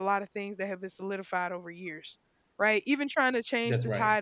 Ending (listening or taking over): listening